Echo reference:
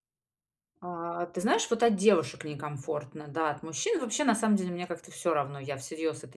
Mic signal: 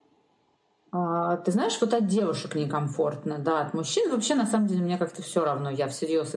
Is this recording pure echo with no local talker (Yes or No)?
Yes